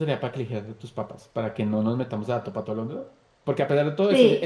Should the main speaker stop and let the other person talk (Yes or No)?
No